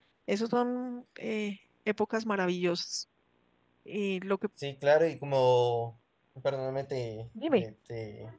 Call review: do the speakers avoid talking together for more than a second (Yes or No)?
Yes